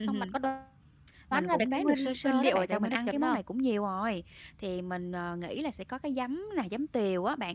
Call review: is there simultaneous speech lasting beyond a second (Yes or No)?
Yes